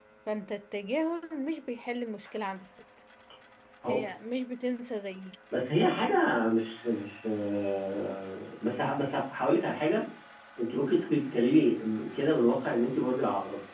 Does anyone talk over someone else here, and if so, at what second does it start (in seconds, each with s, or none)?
none